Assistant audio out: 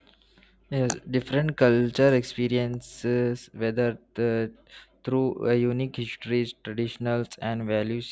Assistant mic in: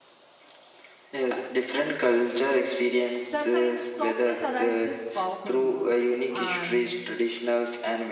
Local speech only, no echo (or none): Sometimes softness arrives with powerful waves, and